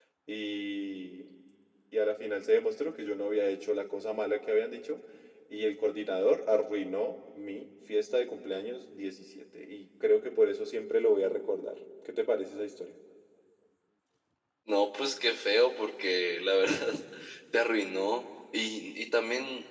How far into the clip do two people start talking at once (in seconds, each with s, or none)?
none